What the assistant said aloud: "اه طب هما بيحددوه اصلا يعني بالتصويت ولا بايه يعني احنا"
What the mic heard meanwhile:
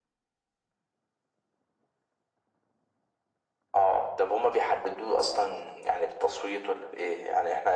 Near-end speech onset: none

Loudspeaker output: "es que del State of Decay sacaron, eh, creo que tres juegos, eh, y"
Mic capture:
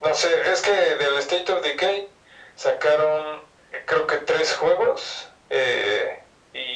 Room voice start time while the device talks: none

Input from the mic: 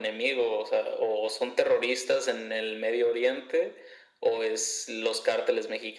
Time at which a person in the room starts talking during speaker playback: none

